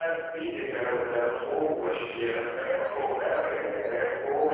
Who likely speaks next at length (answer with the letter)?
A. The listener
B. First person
A